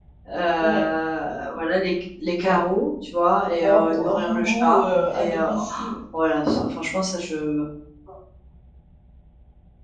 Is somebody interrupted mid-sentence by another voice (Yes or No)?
Yes